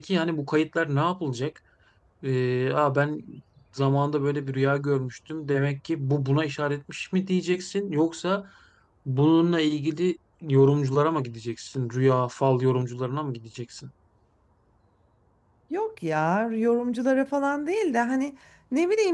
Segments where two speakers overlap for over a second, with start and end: none

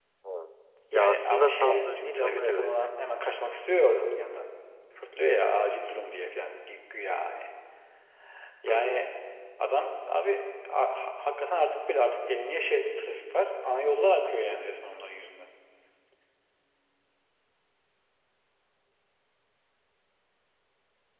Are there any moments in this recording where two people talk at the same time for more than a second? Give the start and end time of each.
0.9-2.7

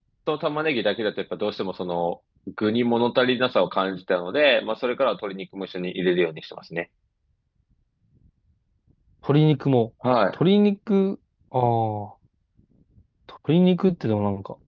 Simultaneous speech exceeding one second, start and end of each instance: none

